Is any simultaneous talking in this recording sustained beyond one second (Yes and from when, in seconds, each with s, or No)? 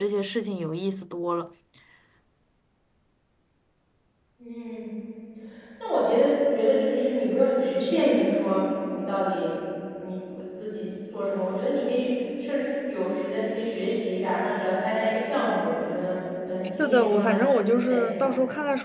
Yes, from 16.8 s